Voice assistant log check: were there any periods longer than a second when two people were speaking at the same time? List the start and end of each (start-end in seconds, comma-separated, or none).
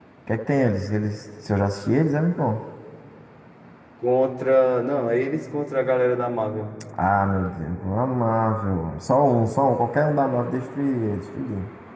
none